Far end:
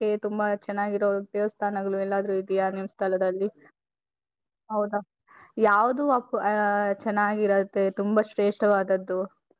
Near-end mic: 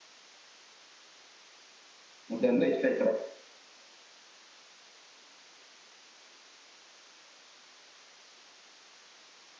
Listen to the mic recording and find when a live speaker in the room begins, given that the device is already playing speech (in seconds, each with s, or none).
2.3 s